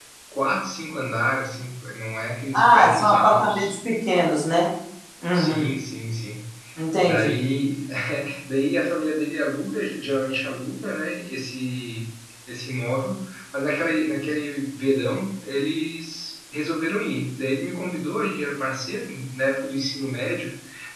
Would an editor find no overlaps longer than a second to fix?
No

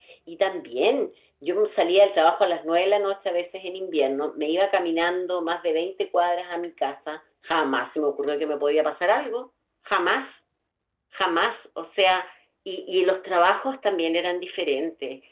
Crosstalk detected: No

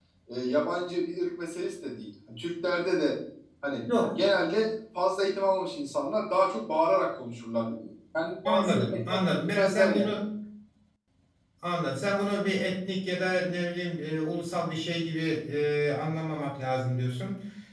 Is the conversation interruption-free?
No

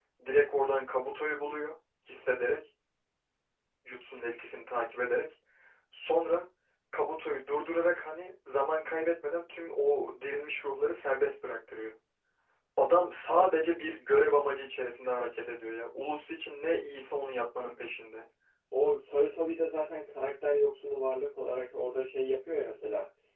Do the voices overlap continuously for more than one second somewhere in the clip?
No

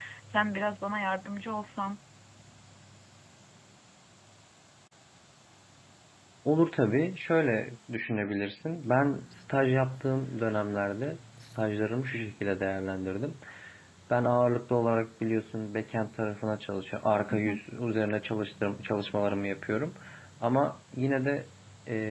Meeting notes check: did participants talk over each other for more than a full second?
No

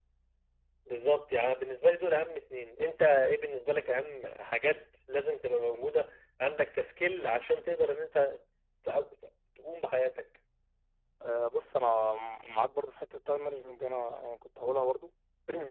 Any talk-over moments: No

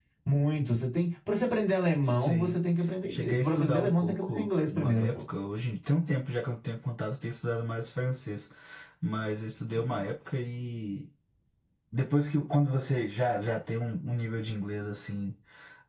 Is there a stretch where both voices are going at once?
Yes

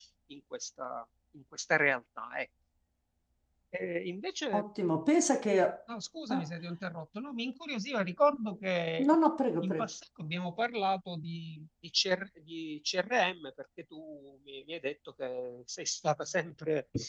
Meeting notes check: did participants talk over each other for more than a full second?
No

